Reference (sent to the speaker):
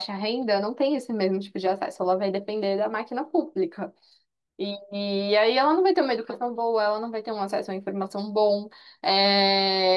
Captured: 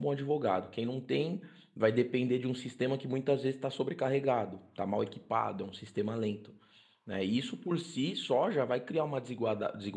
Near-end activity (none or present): present